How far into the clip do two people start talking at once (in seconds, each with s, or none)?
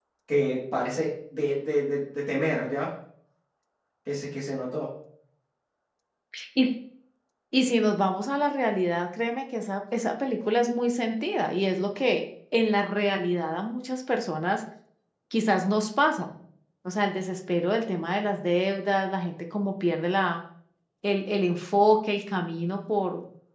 none